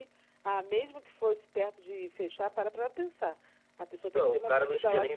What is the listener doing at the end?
taking over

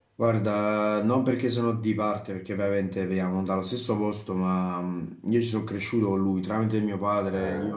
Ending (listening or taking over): listening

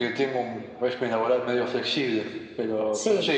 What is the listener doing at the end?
listening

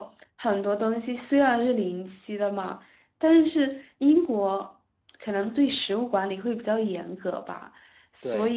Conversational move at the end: listening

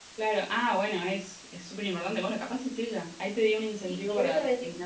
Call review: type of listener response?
taking over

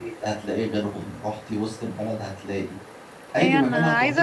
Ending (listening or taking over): taking over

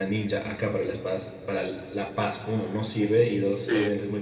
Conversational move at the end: listening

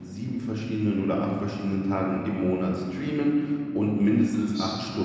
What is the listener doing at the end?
listening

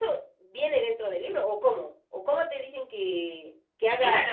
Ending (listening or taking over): taking over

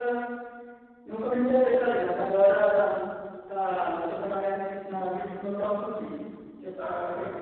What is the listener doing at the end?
listening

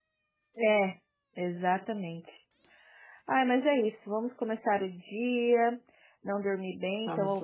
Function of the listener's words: listening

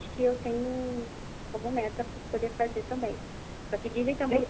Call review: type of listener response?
listening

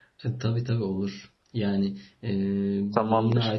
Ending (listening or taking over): listening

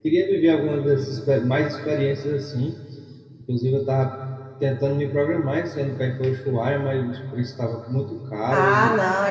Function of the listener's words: taking over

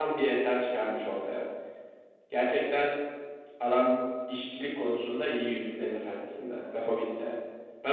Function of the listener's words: listening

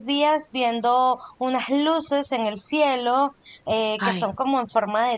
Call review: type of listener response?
listening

